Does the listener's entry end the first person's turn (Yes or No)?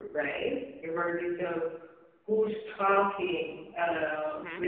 No